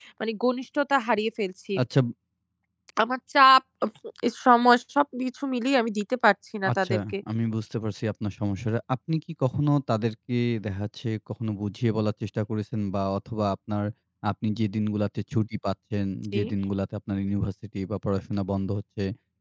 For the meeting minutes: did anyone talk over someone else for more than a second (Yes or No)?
No